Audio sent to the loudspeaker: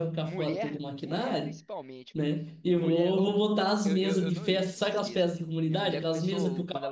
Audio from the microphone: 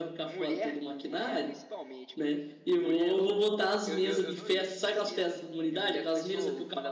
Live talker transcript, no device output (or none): none